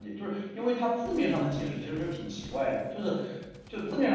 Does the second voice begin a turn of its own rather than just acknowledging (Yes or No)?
No